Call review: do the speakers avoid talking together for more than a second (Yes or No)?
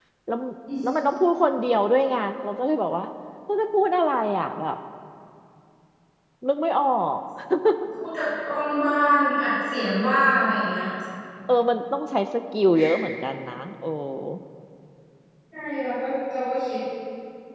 Yes